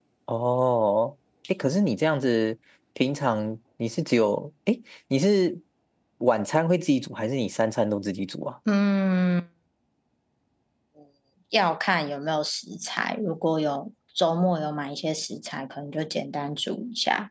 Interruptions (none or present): none